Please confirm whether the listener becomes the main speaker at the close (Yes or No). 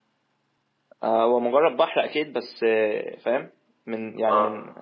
No